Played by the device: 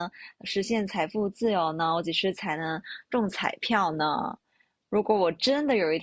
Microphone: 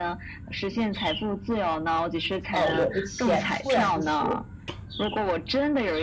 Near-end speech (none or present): present